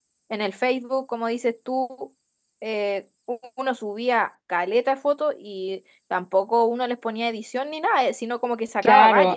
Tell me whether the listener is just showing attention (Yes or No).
No